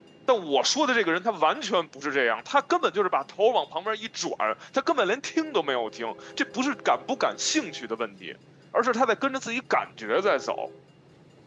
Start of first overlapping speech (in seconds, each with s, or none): none